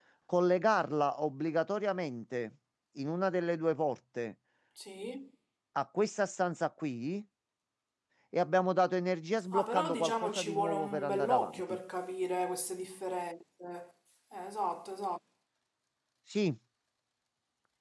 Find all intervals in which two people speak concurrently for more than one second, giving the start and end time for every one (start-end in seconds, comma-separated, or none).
9.5-11.6